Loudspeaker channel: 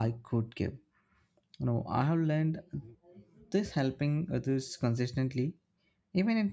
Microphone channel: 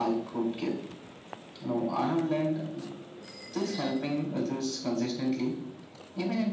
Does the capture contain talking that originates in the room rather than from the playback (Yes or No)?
No